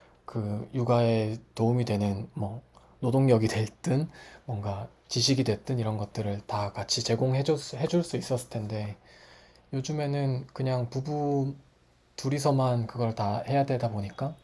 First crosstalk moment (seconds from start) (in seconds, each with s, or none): none